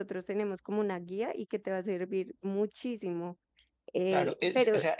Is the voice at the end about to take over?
Yes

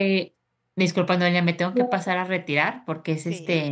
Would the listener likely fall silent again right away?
Yes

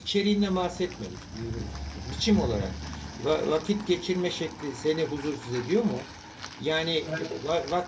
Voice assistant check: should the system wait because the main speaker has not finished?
Yes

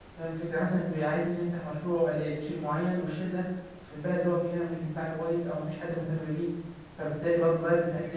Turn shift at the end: No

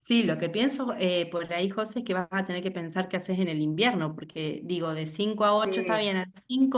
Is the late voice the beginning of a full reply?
No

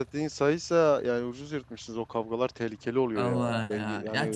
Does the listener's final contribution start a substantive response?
Yes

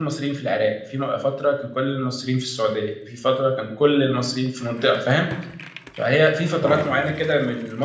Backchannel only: Yes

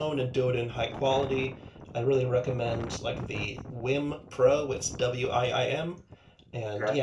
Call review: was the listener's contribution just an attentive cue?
Yes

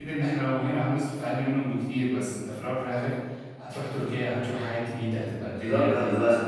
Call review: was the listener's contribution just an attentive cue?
No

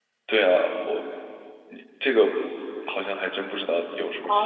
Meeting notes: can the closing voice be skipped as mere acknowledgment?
No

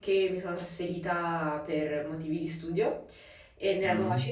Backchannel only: Yes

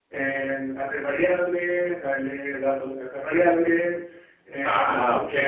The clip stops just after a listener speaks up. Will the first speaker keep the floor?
Yes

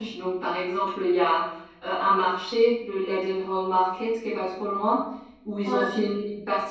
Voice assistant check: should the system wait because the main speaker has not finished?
Yes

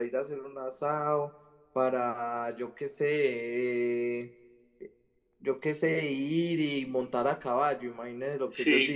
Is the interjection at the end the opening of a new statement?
Yes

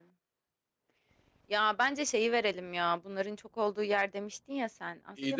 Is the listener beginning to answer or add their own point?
Yes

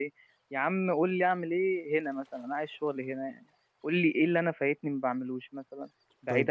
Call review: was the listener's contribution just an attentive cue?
No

